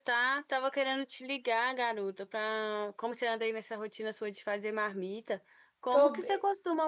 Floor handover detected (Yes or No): No